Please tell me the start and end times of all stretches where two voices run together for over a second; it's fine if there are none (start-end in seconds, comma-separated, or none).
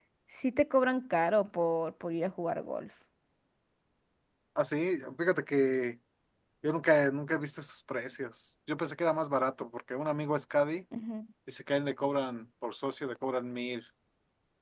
none